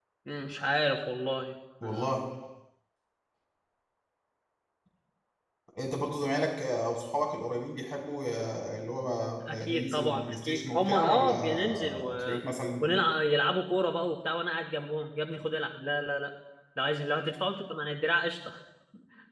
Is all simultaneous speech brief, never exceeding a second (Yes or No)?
No